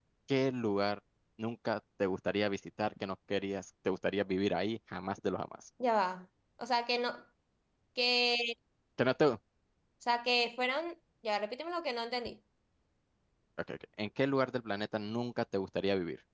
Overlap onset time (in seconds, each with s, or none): none